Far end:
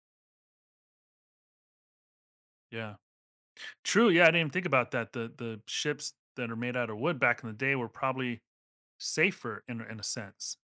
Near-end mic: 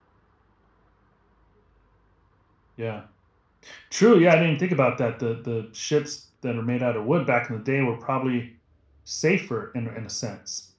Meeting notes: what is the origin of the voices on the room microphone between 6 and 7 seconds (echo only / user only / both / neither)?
echo only